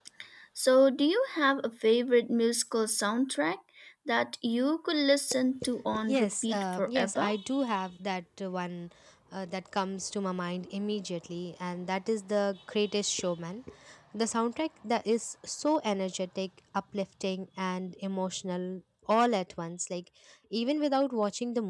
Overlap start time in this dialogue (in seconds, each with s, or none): 5.9 s